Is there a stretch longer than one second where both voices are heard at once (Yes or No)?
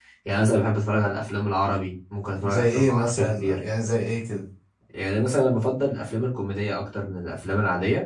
Yes